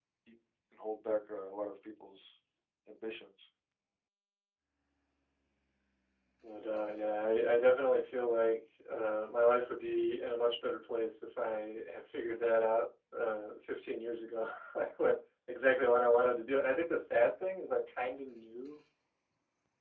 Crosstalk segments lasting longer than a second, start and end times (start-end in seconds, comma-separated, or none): none